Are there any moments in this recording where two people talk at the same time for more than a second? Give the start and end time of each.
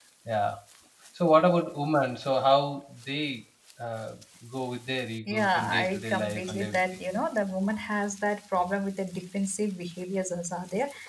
5.3-6.8

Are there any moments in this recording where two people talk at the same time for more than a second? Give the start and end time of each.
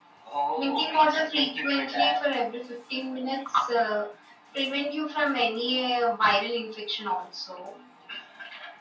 0.5-2.2

